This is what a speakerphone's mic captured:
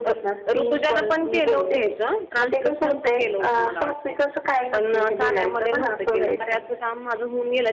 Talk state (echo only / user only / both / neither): both